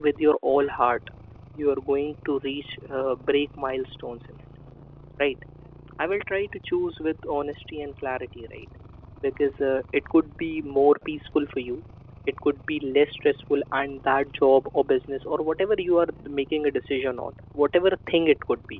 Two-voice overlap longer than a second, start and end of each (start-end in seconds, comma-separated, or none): none